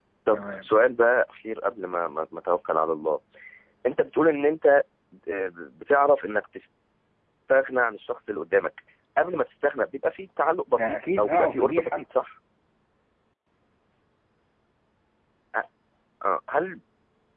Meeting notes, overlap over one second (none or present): present